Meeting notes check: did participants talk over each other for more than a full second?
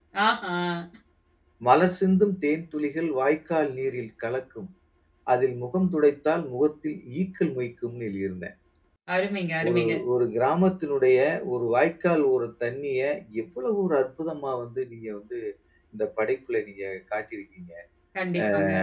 No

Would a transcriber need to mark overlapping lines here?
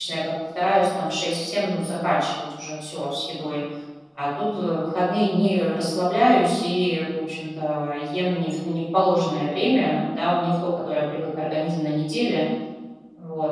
No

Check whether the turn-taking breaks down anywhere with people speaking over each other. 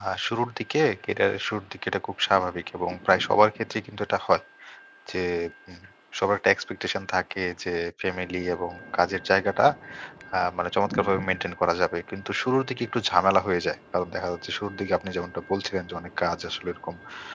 No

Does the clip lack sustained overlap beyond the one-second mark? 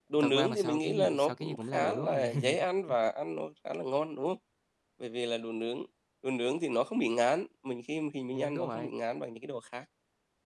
No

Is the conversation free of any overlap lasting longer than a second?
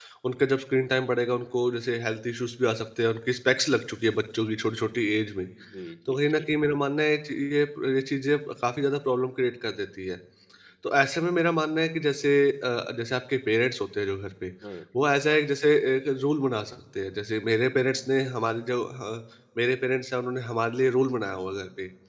Yes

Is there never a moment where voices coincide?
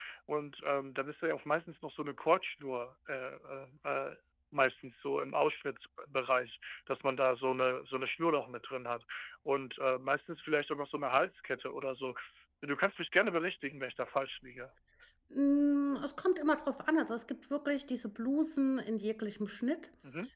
Yes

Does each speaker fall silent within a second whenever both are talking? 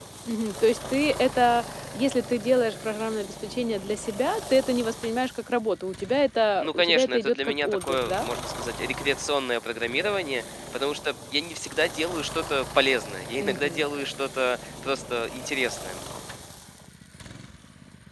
No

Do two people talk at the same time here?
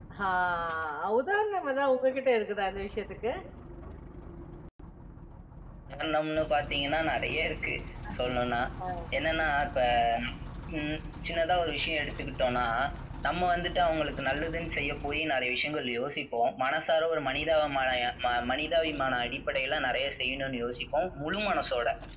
No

